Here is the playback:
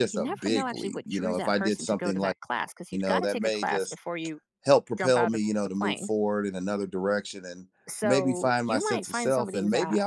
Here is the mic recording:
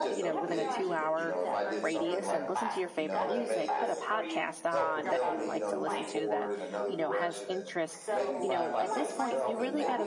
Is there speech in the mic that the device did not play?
Yes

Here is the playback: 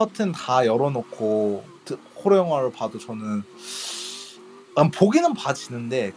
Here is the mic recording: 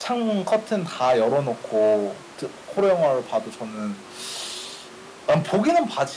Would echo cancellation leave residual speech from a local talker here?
No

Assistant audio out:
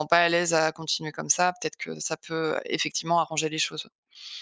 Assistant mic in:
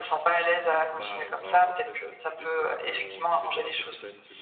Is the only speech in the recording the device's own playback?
No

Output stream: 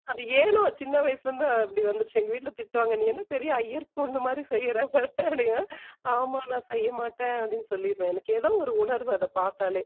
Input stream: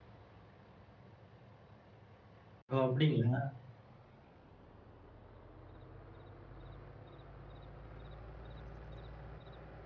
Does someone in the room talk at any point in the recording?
Yes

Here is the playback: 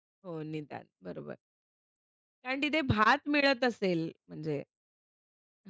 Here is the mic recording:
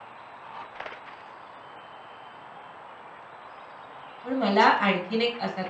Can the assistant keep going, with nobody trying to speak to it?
No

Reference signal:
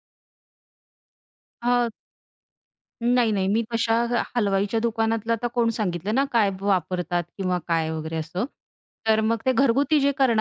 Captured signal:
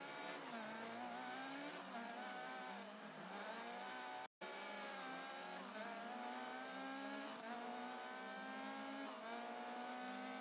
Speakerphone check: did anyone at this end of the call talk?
No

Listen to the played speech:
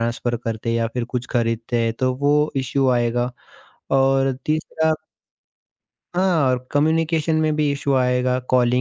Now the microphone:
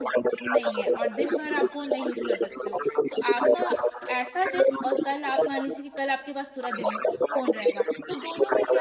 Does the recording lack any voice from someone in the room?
No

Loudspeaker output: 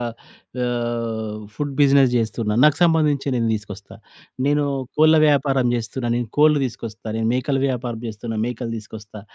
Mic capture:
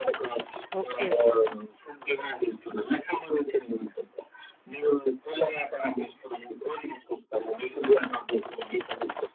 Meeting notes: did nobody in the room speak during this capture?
No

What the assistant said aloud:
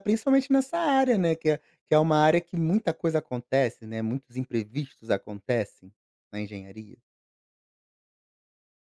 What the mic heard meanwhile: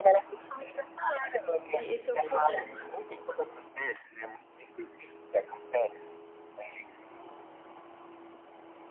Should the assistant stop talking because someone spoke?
Yes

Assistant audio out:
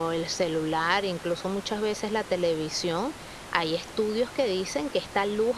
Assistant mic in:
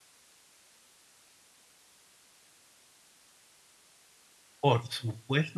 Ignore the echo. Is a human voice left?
Yes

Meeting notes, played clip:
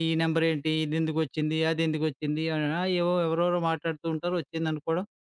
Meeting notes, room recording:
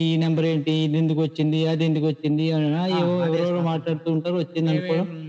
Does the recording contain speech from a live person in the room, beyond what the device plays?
Yes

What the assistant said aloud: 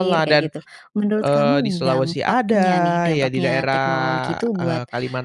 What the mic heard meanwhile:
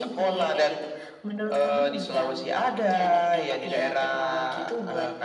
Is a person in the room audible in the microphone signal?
No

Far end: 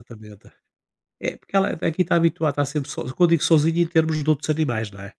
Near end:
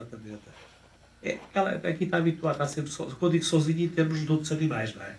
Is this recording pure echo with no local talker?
Yes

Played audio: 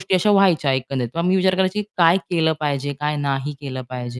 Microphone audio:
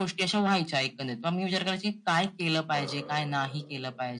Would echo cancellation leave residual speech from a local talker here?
Yes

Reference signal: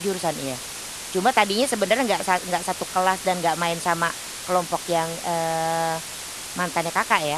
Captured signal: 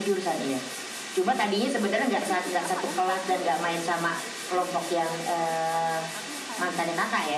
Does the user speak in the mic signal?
Yes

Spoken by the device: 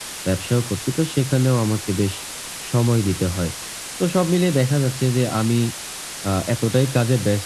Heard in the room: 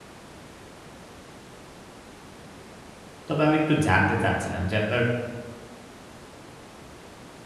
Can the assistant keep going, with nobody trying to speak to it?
No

